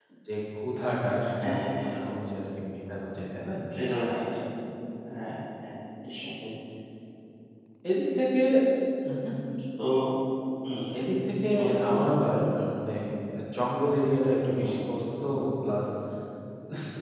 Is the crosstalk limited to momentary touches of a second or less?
Yes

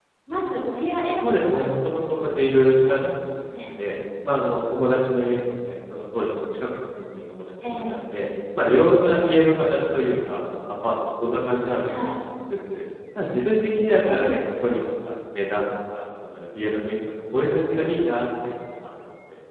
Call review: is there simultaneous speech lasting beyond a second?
Yes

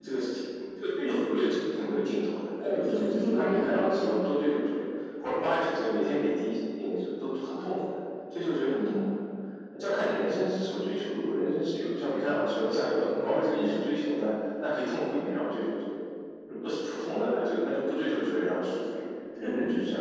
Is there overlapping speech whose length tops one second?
Yes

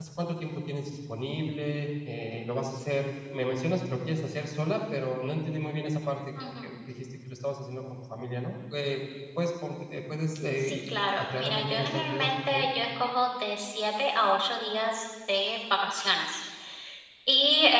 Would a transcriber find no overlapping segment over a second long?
No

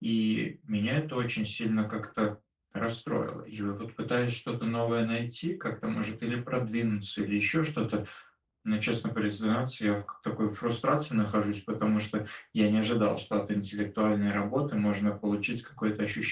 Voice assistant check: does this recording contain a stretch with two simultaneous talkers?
No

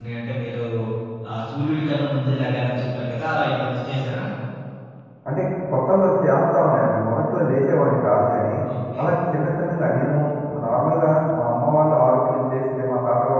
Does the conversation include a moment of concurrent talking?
No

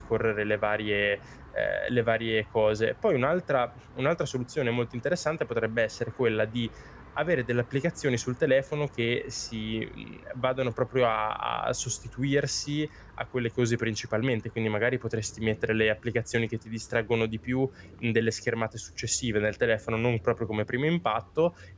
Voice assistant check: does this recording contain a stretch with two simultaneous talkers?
No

